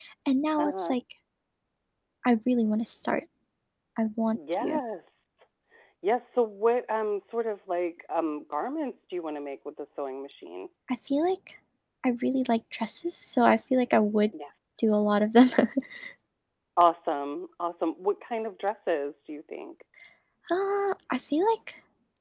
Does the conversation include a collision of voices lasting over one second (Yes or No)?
No